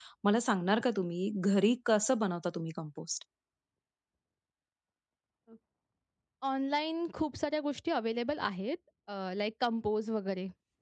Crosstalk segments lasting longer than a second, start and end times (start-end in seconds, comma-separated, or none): none